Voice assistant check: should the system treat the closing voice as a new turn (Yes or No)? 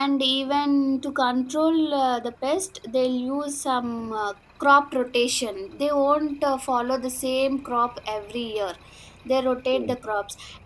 No